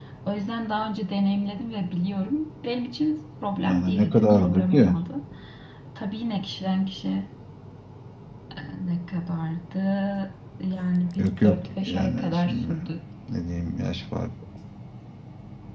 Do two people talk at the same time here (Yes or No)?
Yes